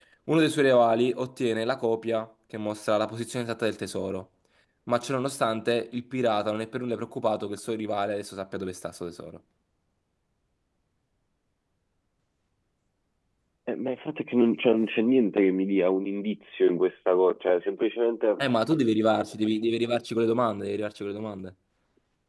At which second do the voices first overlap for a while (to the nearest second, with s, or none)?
none